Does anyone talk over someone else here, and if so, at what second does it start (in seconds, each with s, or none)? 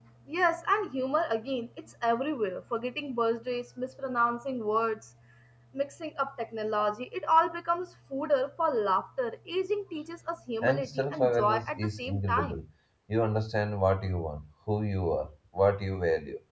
10.6 s